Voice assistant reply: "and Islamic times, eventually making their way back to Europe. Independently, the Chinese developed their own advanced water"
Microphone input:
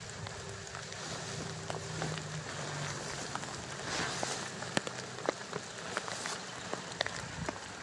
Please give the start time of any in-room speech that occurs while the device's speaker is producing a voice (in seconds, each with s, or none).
none